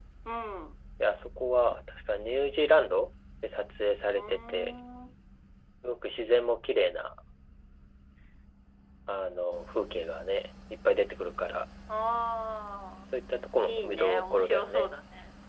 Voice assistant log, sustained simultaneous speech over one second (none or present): present